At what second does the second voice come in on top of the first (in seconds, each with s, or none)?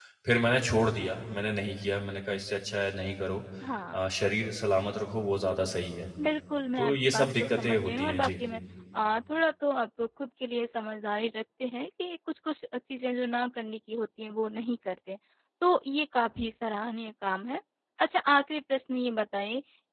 6.8 s